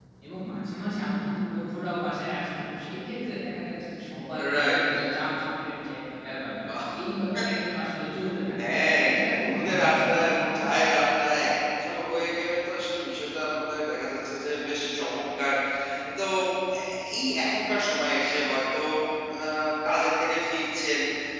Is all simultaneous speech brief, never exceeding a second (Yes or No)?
No